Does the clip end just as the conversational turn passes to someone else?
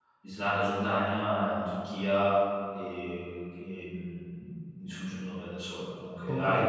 Yes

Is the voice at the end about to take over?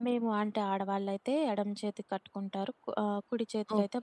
Yes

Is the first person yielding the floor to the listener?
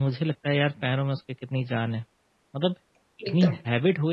No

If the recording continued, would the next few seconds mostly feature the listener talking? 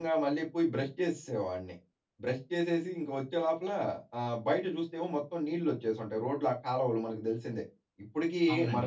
No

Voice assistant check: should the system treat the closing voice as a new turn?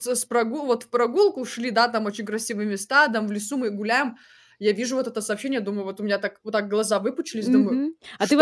Yes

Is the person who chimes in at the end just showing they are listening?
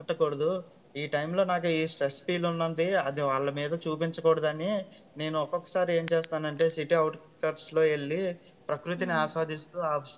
Yes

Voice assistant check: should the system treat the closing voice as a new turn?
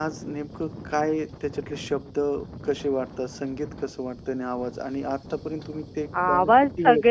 Yes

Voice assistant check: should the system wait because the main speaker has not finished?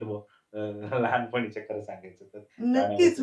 No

